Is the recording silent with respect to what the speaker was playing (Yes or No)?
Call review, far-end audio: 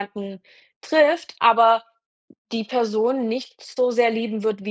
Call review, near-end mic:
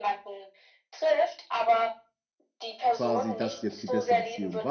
No